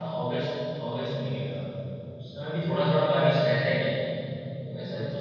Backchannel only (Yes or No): Yes